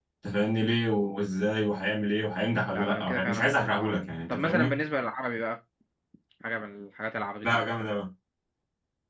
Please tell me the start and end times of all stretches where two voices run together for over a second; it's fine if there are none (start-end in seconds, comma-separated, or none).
2.7-4.8